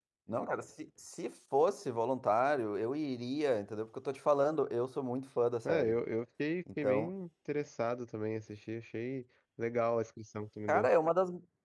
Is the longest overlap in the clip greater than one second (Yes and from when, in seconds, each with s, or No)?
No